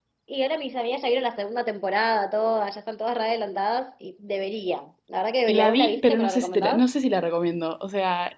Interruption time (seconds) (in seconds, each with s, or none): 5.5 s